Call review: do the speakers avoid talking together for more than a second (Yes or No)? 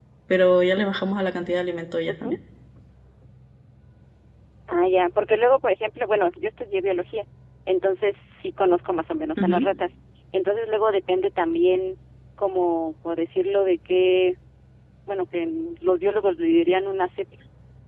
Yes